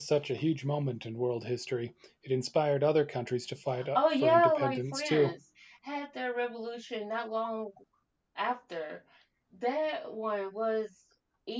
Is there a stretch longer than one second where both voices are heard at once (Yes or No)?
Yes